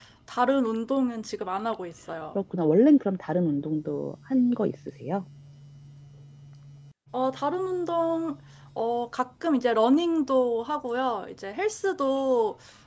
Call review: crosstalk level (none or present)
none